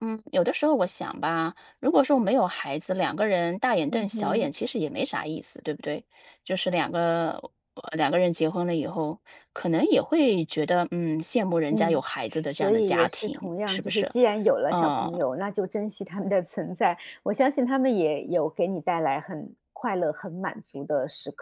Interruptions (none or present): present